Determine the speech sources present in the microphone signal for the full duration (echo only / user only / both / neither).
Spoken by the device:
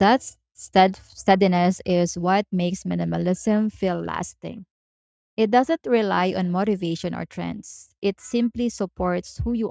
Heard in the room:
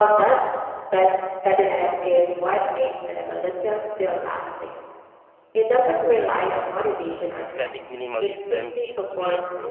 both